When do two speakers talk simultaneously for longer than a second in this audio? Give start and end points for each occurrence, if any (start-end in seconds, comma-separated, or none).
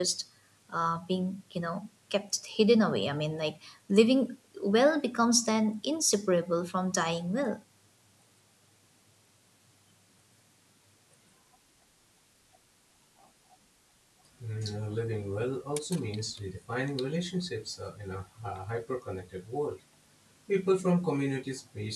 none